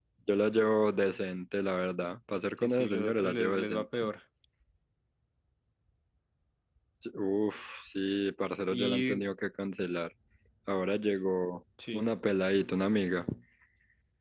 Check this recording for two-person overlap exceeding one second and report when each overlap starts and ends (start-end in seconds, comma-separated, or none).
2.6-3.8